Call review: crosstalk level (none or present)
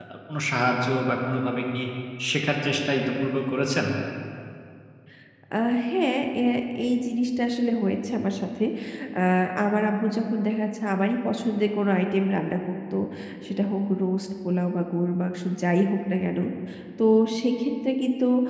none